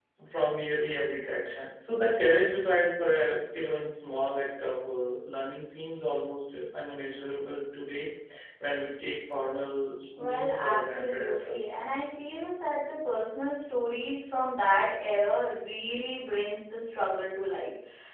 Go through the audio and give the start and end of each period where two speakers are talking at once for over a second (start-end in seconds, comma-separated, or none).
10.2-11.6